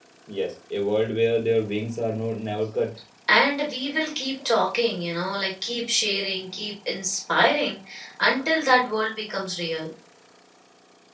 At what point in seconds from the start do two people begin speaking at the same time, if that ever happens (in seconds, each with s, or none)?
none